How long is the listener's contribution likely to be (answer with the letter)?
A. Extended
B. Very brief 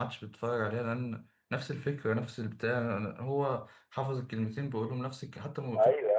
A